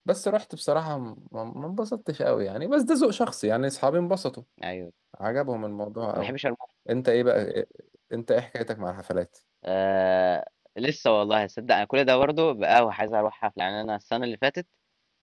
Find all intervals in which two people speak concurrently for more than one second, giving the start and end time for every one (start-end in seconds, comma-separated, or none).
none